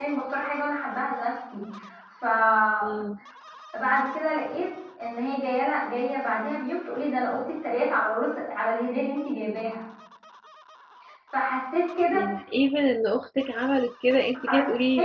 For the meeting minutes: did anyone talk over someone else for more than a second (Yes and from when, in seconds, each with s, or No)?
No